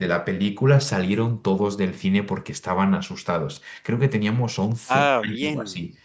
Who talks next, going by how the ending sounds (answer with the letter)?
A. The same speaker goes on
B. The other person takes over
A